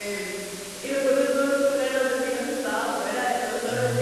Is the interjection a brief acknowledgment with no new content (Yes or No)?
Yes